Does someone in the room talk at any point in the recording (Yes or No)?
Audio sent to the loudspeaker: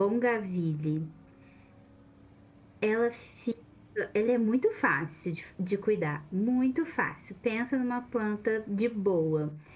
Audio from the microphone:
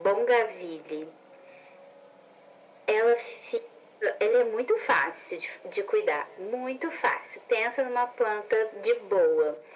No